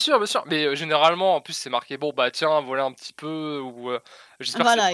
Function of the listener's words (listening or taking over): listening